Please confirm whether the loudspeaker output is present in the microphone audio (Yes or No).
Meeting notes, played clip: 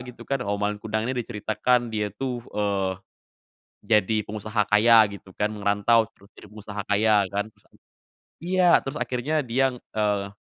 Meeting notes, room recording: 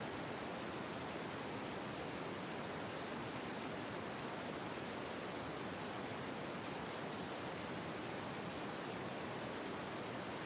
No